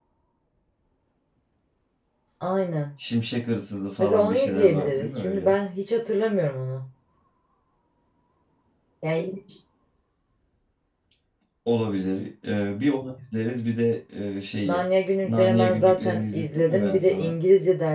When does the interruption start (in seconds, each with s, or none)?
4.0 s